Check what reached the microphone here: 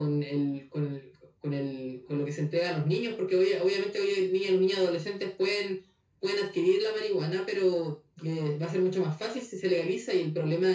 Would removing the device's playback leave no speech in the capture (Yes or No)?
Yes